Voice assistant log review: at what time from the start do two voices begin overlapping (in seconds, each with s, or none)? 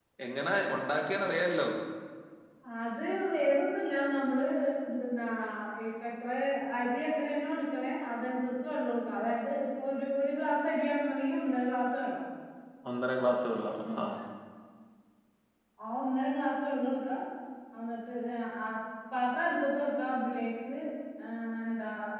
none